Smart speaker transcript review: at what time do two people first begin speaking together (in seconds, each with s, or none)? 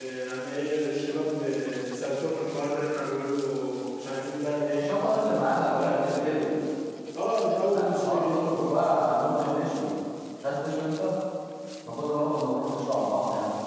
4.7 s